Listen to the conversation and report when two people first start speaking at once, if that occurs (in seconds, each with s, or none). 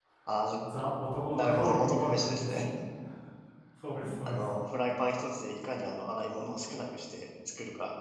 1.3 s